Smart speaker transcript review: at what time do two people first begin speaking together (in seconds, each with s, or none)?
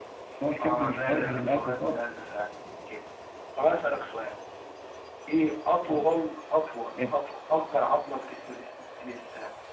0.6 s